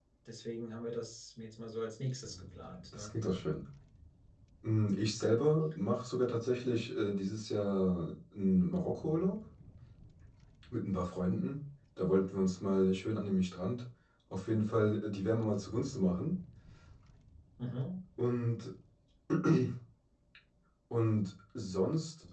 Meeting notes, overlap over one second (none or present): none